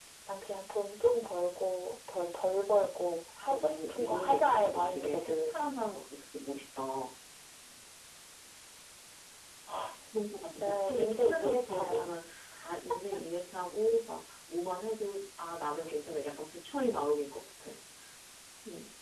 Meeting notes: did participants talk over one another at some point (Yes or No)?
Yes